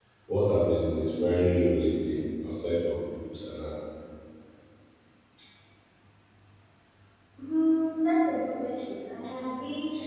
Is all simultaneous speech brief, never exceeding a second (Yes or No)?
Yes